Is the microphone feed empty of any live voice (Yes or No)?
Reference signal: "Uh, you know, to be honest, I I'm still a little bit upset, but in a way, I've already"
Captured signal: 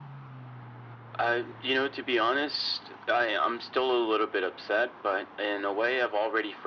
Yes